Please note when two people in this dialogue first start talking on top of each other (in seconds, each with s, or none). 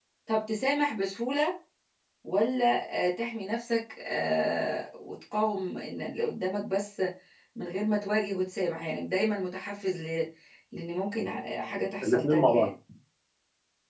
11.2 s